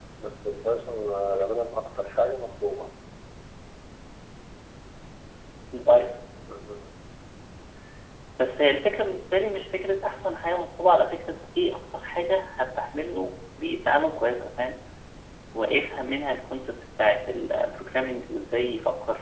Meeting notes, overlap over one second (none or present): none